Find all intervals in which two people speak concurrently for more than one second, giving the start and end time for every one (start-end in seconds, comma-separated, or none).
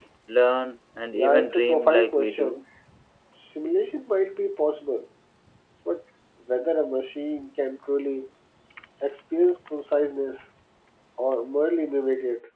1.1-2.6